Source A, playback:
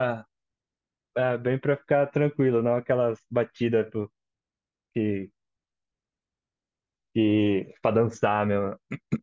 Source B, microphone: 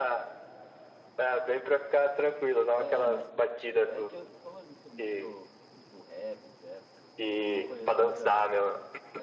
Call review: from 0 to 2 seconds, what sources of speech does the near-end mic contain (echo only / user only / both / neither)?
echo only